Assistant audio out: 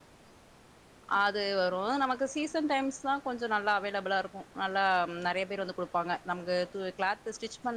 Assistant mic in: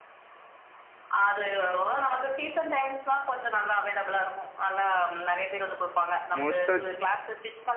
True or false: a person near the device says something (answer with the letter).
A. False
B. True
B